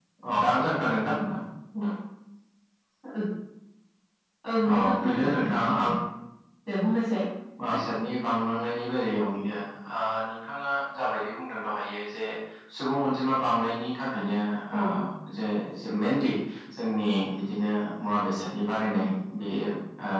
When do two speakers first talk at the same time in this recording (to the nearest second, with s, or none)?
5 s